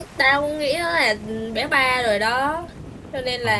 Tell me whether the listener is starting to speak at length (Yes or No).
Yes